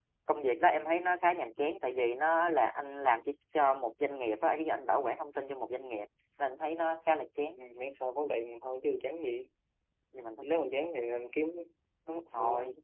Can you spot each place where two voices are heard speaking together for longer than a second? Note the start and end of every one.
none

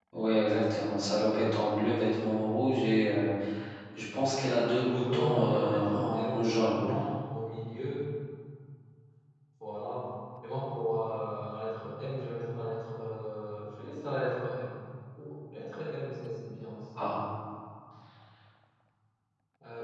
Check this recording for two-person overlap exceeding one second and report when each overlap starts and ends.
4.8-6.8

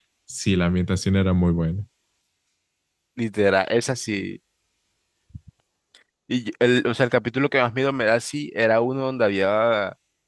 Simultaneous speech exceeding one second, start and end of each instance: none

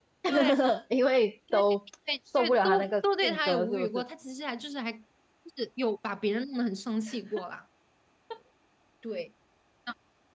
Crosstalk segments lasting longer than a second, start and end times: 2.4-4.0

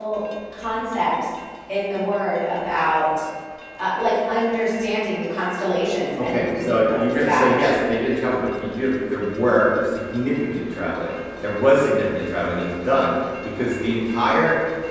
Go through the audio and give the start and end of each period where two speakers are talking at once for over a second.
6.2-7.7

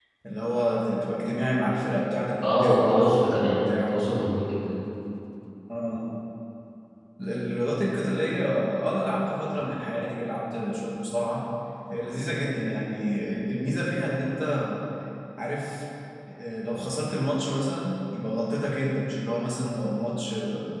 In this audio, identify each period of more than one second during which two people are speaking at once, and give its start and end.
2.4-3.9

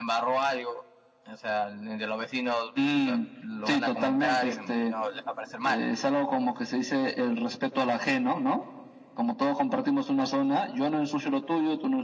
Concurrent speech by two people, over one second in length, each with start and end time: 3.7-4.9

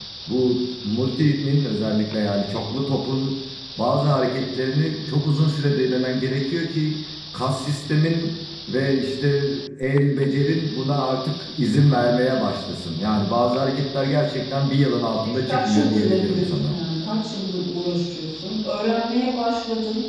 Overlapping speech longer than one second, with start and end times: 15.2-16.8

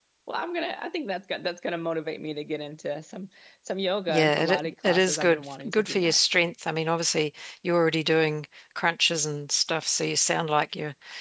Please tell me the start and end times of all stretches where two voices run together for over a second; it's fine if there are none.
4.1-6.2

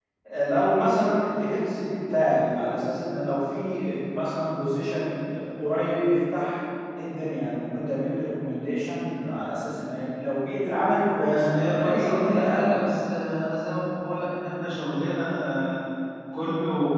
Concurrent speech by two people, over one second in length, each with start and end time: 11.2-12.8

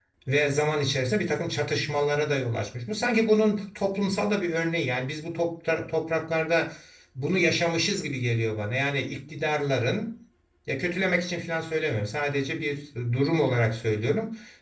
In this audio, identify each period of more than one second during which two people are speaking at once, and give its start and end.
none

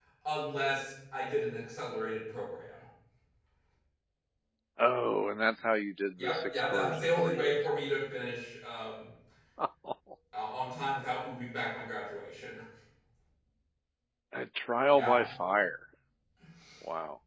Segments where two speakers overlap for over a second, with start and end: 6.2-7.5

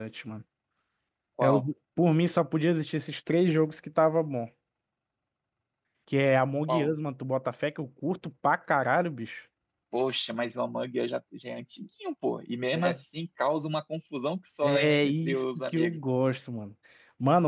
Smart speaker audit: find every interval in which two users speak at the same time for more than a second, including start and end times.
14.6-16.0

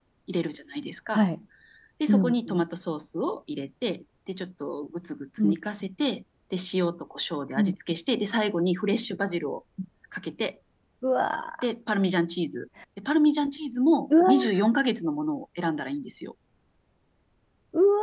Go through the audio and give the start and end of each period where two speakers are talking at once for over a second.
none

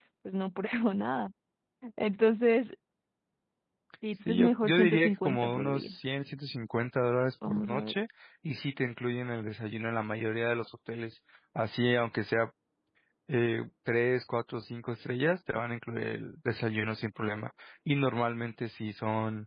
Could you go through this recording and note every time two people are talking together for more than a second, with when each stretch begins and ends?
4.3-5.9

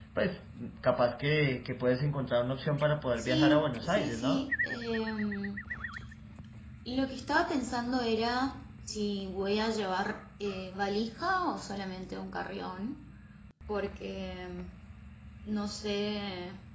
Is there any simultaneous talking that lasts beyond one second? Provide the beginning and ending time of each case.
3.2-4.5

